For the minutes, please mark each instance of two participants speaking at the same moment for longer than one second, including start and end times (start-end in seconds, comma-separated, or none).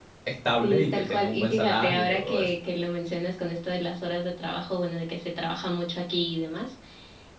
0.6-2.5